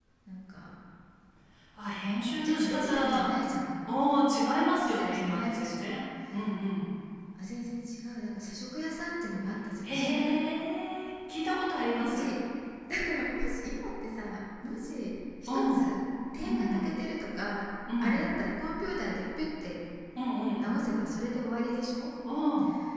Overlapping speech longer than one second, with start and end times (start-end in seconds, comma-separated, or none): 1.9-3.3, 4.8-6.0